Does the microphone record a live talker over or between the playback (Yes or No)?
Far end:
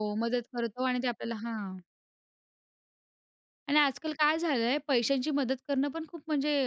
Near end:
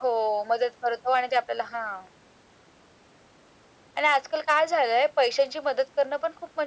No